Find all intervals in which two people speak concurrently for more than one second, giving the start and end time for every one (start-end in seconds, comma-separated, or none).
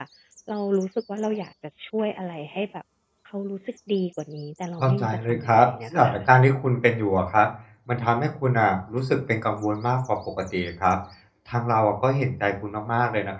4.8-6.2